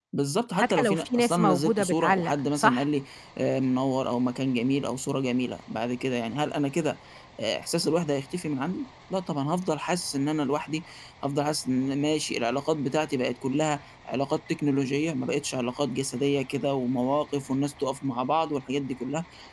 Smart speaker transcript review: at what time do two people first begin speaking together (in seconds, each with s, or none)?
0.6 s